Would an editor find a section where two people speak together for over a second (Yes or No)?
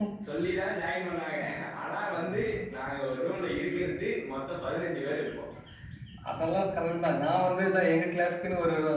No